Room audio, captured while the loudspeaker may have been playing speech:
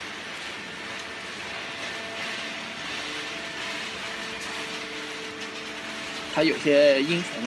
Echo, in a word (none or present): none